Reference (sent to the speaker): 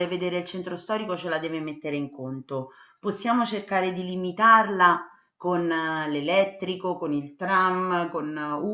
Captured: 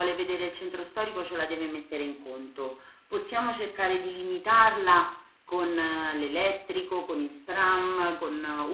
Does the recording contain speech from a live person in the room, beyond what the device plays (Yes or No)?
No